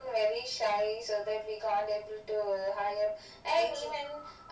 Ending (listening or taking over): listening